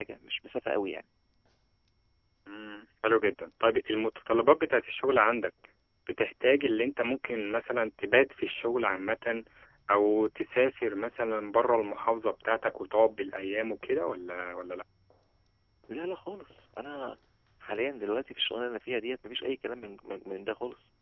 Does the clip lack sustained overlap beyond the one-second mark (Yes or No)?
Yes